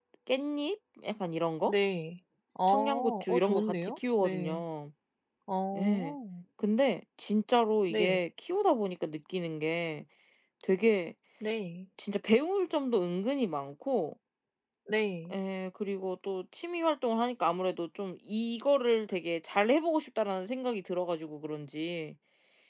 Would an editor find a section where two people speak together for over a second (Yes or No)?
Yes